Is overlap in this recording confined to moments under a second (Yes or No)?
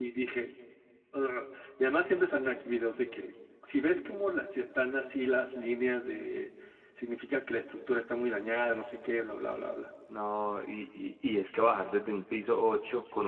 Yes